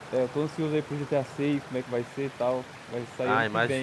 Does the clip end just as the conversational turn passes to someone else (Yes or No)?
Yes